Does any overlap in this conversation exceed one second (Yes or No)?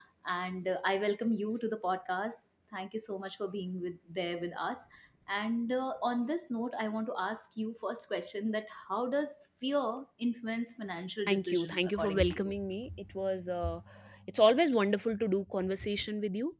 Yes